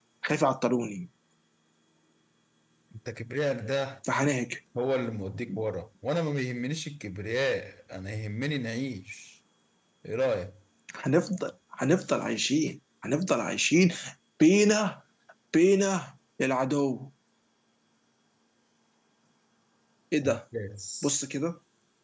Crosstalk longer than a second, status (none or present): none